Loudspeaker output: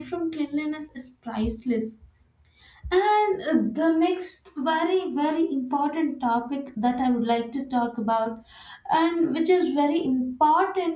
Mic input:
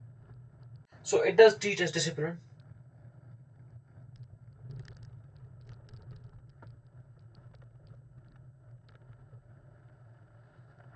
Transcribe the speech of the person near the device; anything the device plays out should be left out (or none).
So it does teach us discipline,